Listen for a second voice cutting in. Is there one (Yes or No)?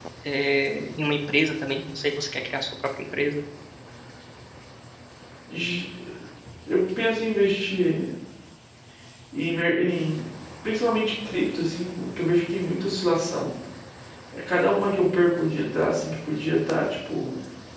No